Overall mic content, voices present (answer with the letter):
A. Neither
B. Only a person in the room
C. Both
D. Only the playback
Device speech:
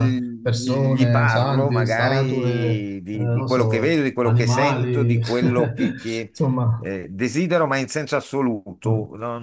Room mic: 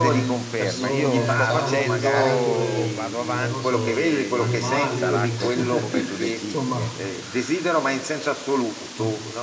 C